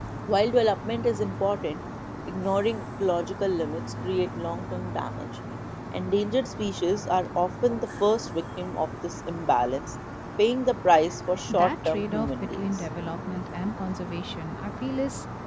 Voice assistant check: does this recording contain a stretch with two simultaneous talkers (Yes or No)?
Yes